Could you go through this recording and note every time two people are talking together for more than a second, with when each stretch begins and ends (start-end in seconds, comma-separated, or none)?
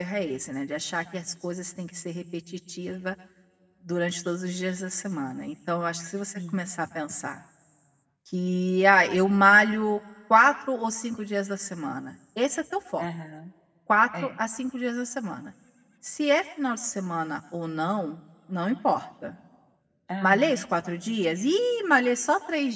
none